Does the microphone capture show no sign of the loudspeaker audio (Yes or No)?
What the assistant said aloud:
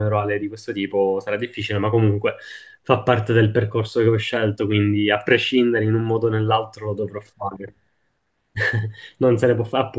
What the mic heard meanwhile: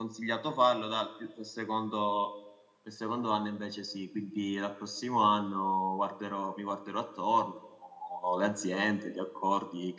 Yes